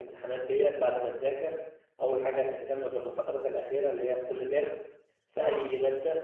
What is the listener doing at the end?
listening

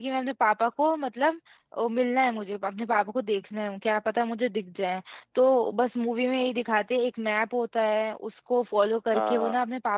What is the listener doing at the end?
listening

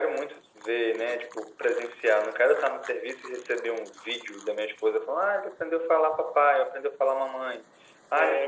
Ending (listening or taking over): listening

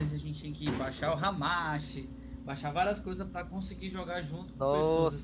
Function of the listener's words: taking over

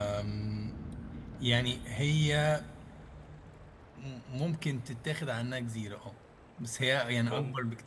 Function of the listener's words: listening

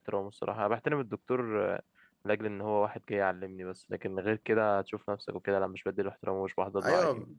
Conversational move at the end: taking over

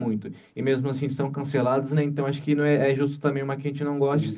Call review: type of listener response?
listening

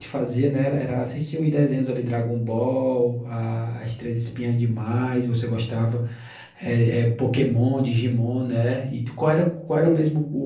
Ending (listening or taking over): listening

